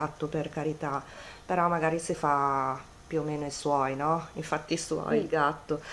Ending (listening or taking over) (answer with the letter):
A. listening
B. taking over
A